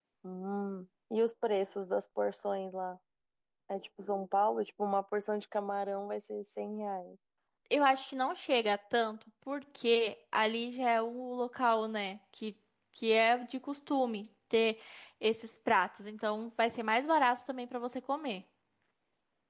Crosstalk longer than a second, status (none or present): none